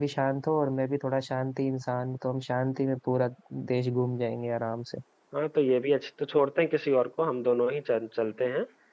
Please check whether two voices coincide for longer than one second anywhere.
No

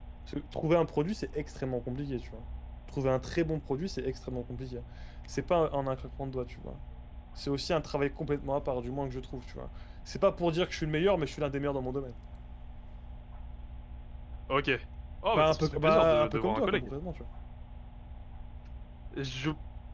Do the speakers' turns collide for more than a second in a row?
Yes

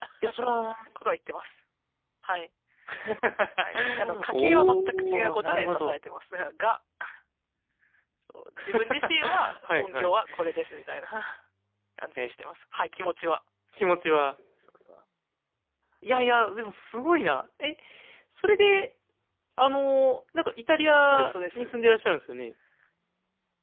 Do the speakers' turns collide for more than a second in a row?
Yes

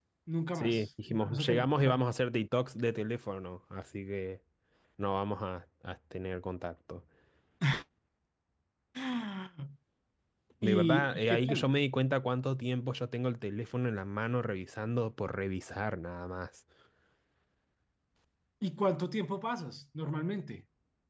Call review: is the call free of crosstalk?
No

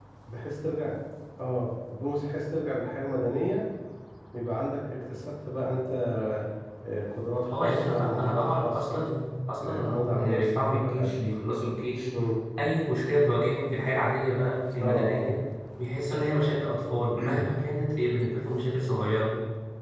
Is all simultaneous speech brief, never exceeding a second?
No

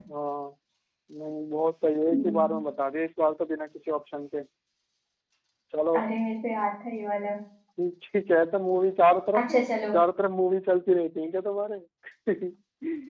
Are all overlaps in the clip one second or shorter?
Yes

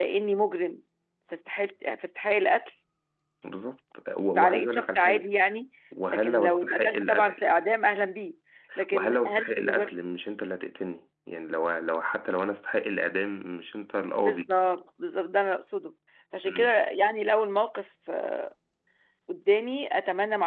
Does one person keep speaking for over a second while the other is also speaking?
Yes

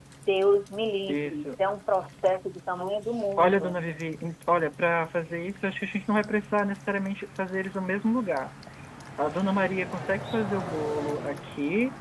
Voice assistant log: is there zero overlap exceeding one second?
Yes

